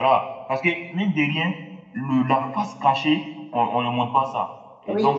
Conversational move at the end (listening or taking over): listening